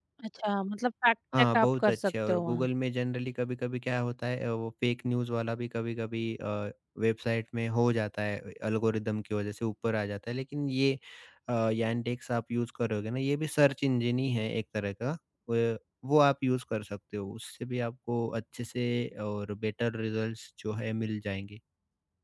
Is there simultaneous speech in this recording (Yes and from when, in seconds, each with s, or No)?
Yes, from 1.3 s